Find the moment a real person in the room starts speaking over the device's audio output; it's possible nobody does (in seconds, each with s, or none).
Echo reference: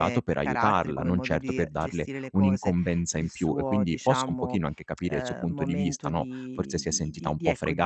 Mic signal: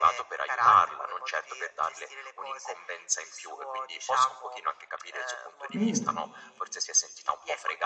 5.7 s